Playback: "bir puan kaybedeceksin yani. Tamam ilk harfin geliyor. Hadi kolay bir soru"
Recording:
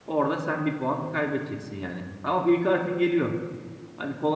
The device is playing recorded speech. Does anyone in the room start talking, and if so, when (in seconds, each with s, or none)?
none